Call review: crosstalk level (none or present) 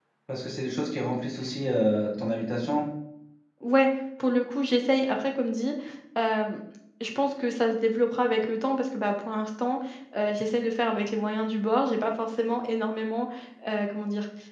none